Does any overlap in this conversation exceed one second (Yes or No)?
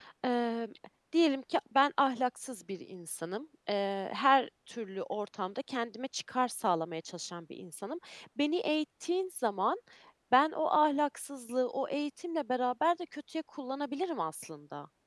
No